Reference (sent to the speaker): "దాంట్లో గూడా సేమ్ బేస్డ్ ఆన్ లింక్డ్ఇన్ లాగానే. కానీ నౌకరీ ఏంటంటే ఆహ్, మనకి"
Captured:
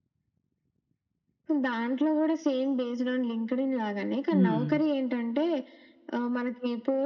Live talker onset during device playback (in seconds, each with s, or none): 4.3 s